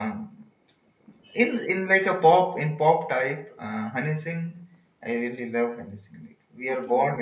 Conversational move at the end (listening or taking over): listening